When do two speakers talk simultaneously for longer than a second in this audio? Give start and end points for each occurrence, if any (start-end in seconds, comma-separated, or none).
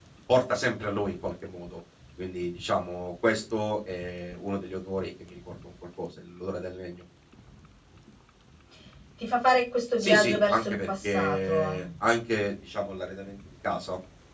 10.0-11.8